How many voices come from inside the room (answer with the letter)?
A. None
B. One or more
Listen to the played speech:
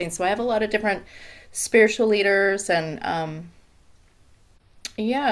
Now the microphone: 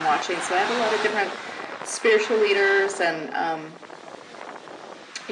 A